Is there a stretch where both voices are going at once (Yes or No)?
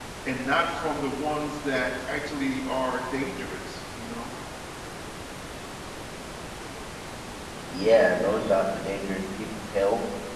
No